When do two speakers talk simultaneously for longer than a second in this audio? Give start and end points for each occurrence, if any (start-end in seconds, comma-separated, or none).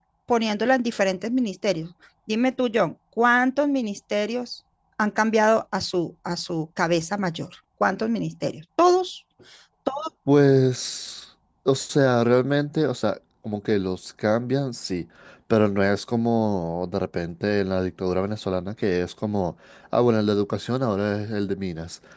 none